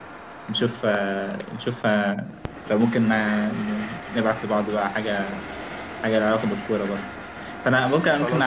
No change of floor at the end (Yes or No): Yes